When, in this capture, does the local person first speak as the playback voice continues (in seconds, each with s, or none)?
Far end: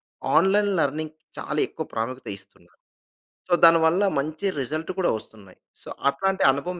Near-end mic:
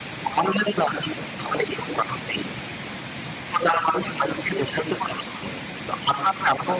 none